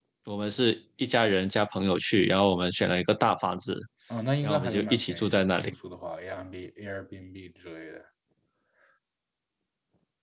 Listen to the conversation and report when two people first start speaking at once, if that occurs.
4 s

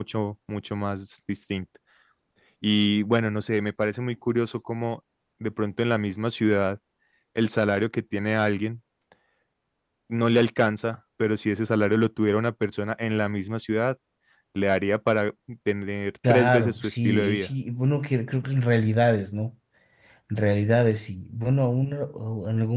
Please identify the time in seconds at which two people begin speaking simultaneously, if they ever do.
16 s

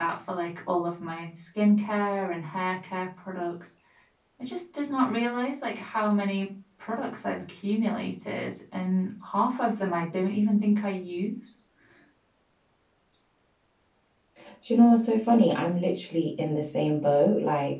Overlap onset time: none

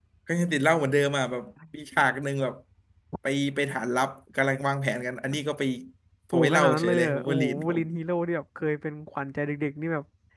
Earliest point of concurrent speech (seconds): 6 s

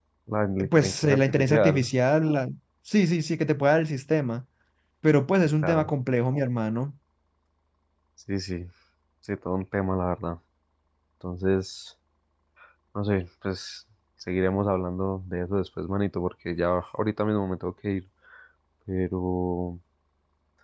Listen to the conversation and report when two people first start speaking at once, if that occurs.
1 s

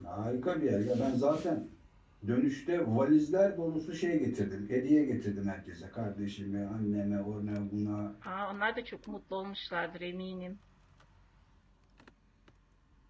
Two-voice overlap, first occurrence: none

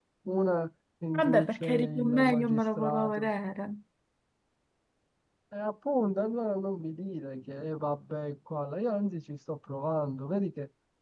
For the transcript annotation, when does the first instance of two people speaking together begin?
1 s

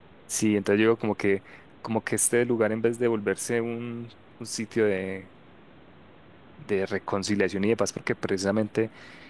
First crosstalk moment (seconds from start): none

